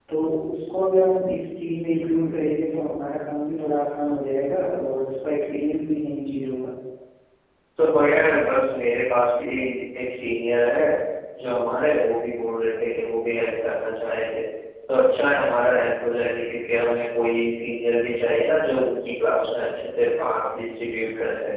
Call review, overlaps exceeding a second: none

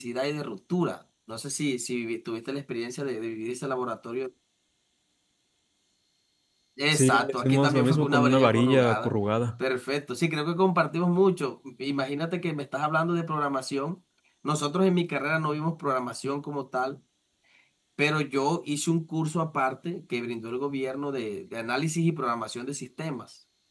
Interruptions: present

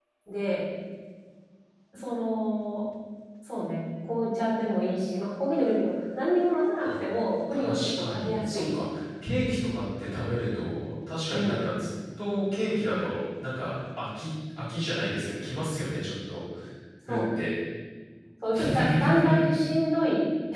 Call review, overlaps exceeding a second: present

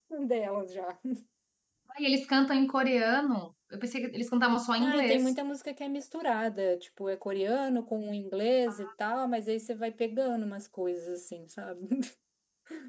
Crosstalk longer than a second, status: none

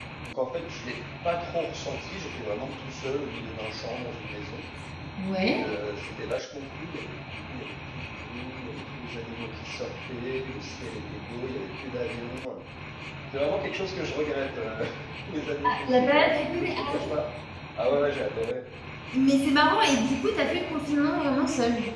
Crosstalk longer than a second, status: present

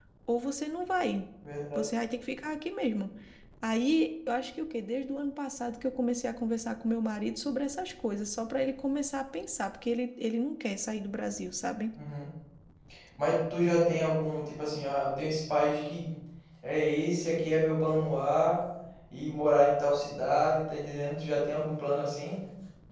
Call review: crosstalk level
none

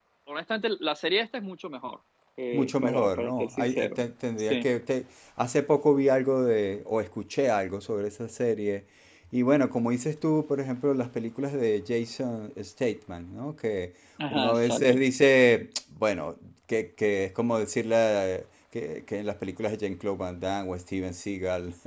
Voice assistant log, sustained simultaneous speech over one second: present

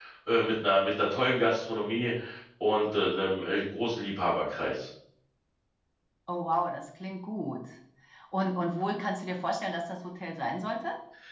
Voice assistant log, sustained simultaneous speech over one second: none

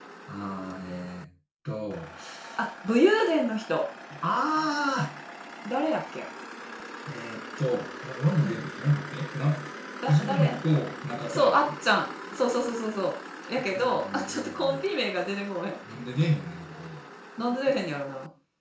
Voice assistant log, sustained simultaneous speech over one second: present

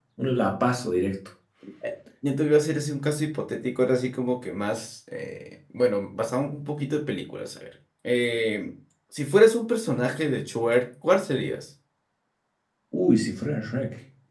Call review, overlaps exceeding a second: none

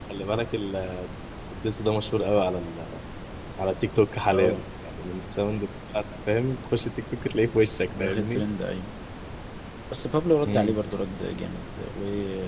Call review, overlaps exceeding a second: none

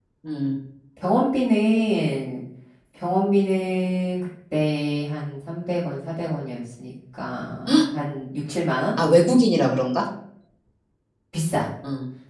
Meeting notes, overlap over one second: none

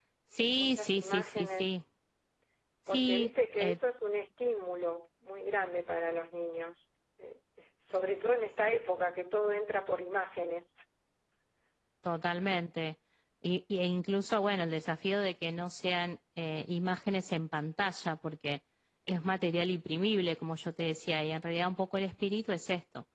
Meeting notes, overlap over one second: present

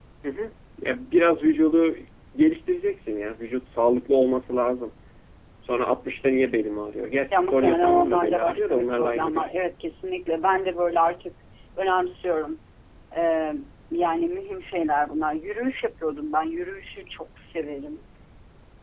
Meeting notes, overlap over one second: present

